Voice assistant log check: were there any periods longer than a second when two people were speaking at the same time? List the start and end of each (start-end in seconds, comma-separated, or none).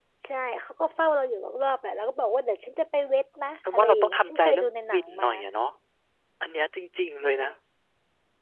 3.7-5.3